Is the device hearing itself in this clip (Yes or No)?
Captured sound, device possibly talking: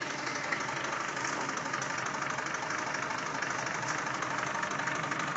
No